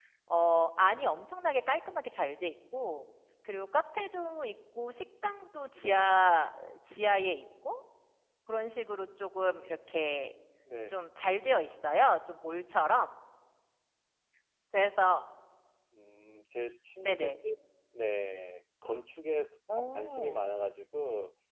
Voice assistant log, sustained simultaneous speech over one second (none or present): none